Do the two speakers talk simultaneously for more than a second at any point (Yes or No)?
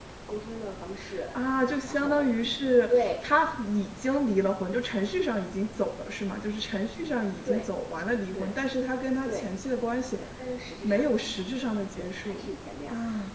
No